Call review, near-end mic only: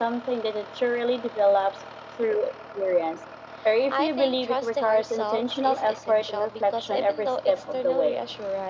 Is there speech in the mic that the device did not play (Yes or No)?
No